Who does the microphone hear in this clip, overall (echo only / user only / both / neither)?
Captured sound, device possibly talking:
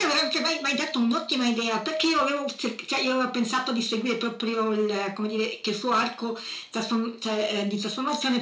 echo only